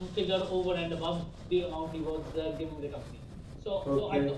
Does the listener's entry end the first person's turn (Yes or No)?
No